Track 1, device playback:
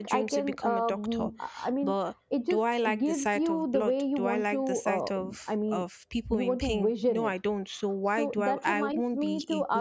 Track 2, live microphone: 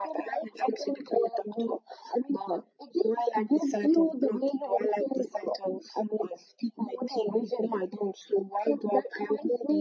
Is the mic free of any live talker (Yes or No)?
Yes